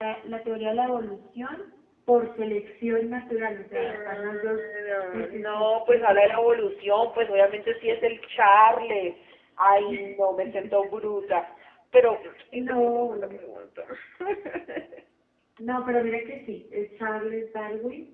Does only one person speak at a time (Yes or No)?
No